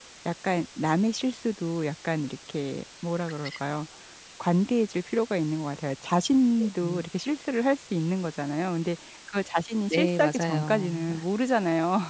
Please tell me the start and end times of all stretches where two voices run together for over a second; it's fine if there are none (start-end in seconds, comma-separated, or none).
9.9-11.2